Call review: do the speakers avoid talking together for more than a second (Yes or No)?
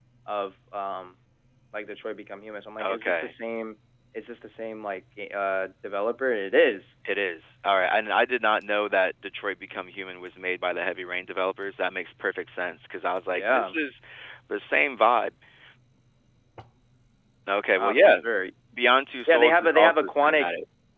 No